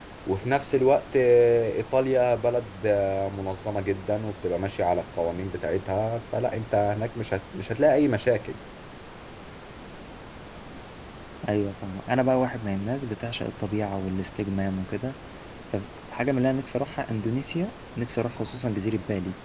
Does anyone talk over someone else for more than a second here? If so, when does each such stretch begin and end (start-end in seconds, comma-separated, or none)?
none